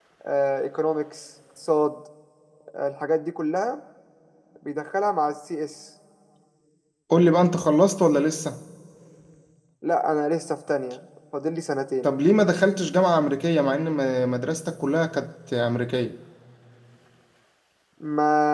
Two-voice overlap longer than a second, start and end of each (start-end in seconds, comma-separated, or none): none